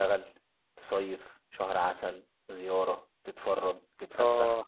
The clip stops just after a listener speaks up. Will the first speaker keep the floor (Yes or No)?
No